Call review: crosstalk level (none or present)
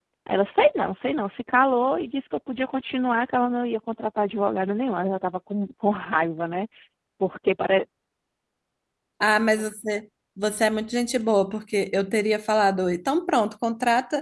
none